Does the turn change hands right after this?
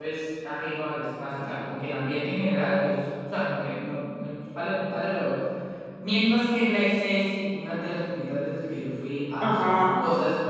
No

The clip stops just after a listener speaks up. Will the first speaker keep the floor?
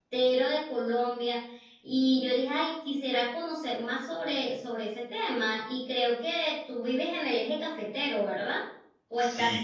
No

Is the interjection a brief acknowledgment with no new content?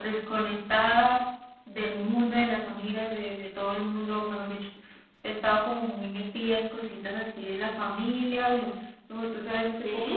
Yes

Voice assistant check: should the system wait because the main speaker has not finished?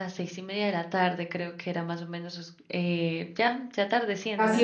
No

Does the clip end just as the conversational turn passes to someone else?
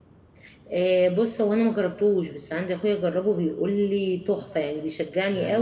Yes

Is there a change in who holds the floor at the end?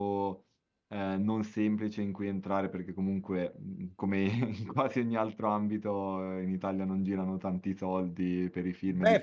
Yes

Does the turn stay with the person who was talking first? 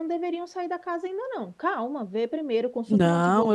No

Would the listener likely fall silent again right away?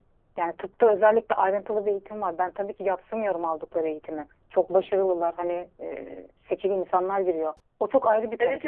Yes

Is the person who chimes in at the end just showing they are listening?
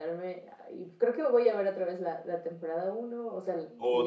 No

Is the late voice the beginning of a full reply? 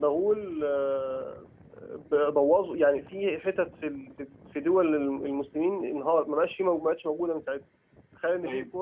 No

